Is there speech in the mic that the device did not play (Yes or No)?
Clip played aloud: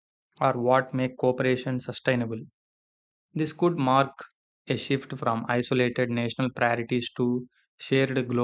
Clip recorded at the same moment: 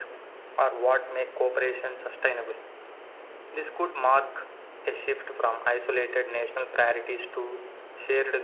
No